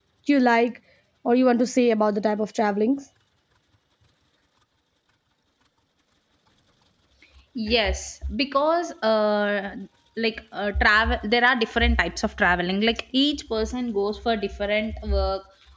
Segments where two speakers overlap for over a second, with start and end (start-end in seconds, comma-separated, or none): none